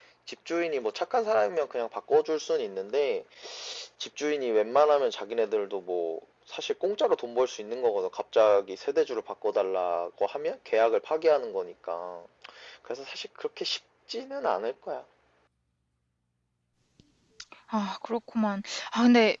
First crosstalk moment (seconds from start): none

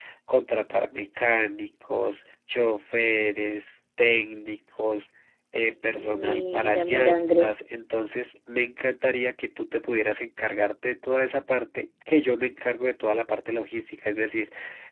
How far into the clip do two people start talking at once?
6.0 s

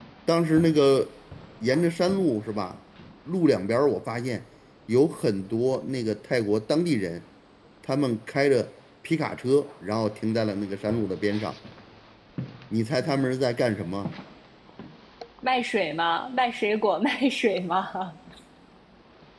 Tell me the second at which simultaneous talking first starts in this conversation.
none

